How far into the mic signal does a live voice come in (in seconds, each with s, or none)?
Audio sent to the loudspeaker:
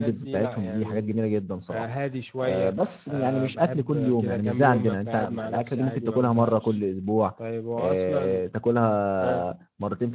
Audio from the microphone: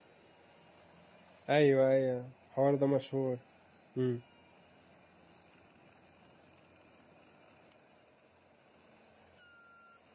1.5 s